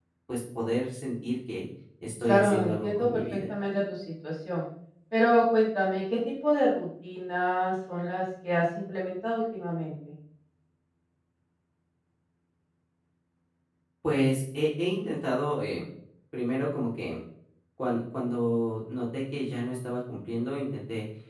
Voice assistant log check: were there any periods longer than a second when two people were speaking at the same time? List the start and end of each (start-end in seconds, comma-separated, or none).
2.3-3.5